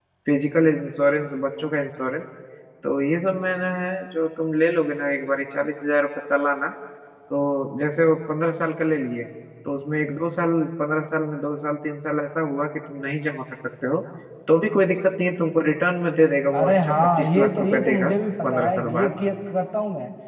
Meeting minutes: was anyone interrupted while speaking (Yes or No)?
Yes